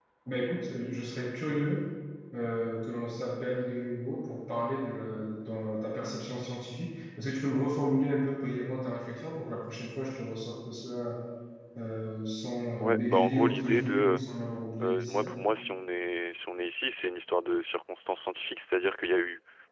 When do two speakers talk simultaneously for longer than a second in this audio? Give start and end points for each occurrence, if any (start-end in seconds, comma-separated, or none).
12.8-14.2